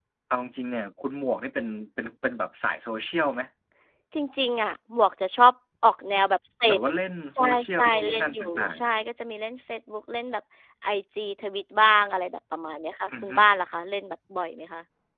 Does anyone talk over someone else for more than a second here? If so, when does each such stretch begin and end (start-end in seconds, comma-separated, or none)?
7.4-9.0